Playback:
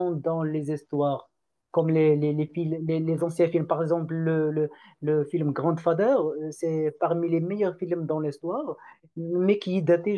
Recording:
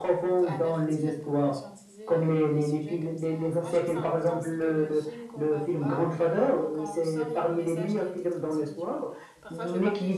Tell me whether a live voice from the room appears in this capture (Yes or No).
Yes